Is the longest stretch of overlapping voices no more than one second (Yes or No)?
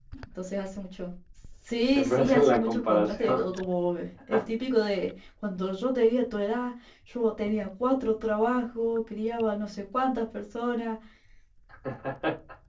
No